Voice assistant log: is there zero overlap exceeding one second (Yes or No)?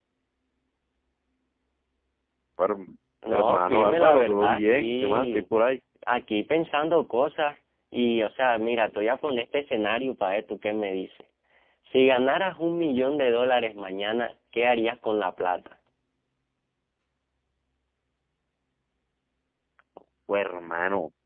No